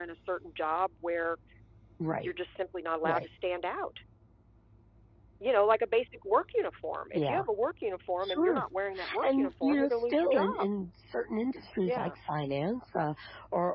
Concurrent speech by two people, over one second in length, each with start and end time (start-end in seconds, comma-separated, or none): 9.2-10.7